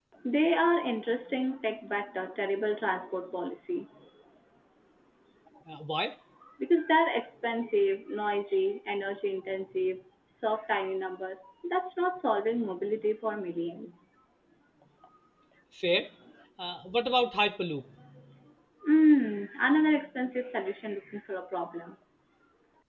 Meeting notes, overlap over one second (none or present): none